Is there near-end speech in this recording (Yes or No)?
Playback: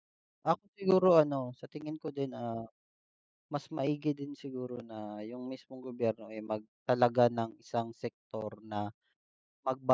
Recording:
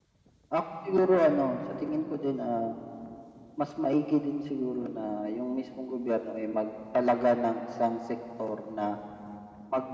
No